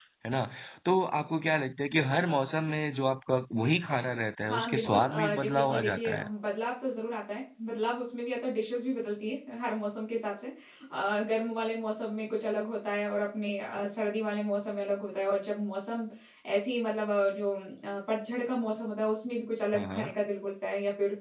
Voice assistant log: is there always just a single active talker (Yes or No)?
No